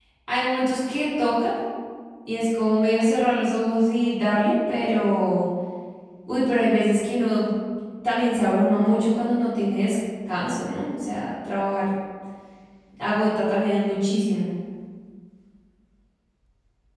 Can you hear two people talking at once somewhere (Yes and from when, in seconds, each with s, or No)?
No